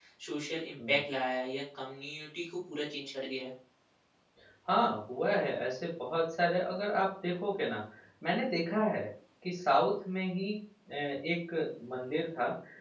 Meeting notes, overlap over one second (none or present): none